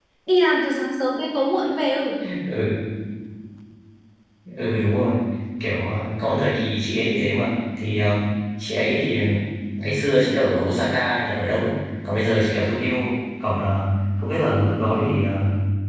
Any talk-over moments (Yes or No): No